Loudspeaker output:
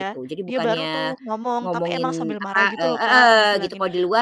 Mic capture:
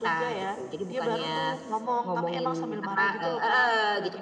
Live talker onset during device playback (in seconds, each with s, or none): none